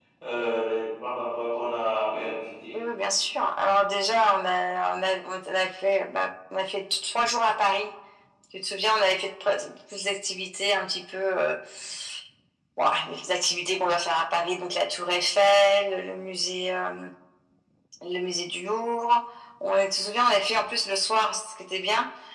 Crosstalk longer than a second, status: none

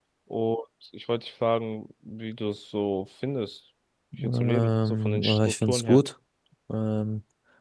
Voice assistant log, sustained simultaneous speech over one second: present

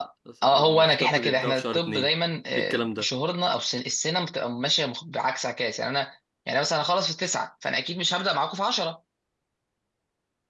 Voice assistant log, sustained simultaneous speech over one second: present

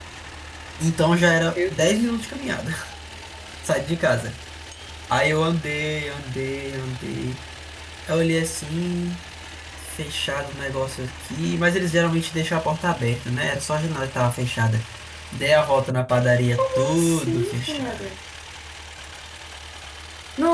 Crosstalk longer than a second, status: present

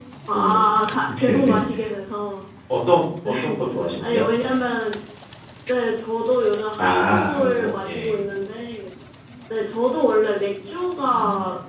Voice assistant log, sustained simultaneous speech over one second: present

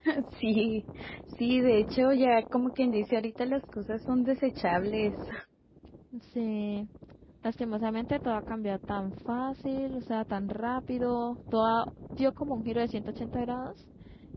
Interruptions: none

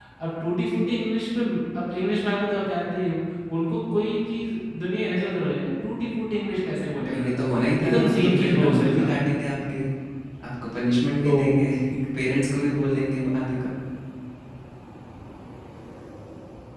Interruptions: present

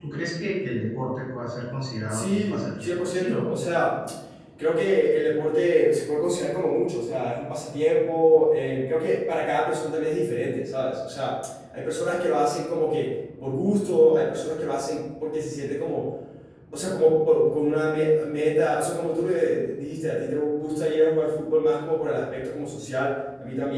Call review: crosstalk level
present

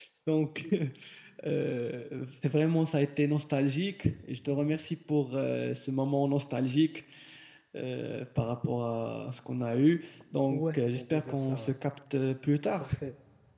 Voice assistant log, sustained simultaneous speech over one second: present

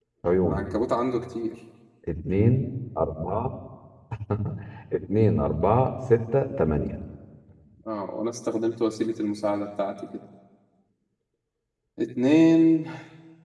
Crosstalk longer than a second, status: none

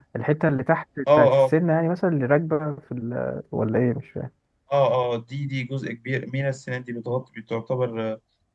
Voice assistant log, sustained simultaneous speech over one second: none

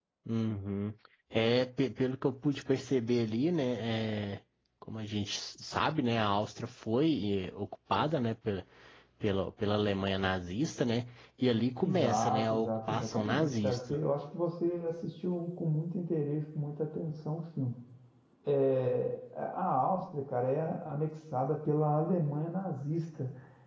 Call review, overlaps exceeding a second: present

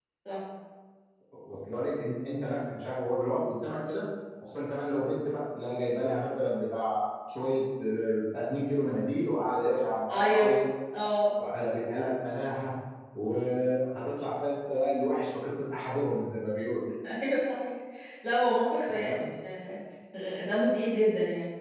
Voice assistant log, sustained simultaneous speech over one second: none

